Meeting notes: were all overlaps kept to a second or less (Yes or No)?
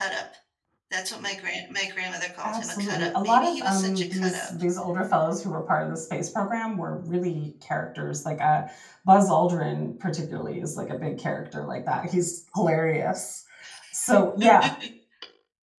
No